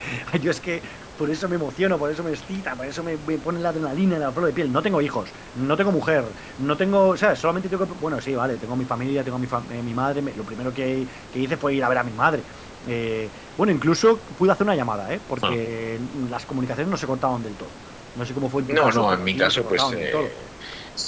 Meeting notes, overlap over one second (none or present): present